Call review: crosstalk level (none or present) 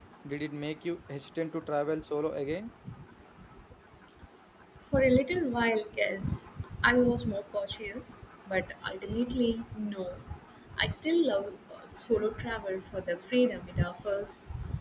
none